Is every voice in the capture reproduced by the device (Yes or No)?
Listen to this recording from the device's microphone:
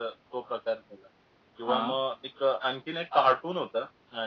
No